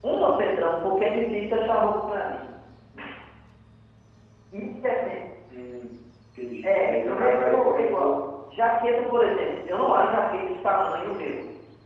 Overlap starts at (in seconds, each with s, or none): 6.6 s